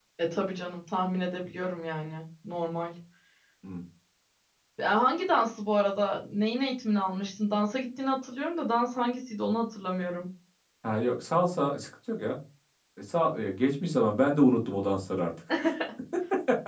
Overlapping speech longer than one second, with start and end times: none

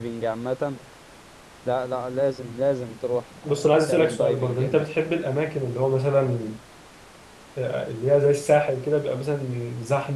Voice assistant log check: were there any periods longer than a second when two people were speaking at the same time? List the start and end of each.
3.4-4.9

